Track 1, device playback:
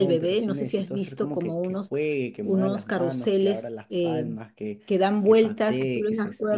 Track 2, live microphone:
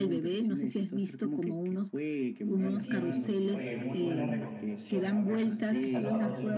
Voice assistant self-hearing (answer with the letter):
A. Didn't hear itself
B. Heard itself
B